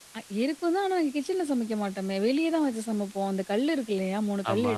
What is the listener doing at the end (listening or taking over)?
listening